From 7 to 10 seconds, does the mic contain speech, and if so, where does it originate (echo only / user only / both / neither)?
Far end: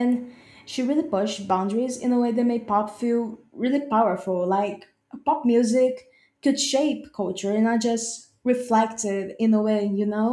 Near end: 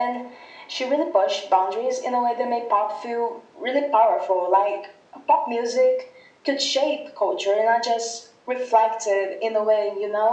echo only